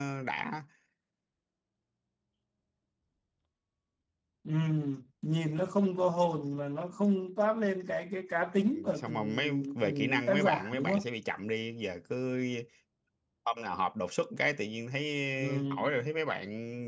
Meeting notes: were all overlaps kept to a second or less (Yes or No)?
No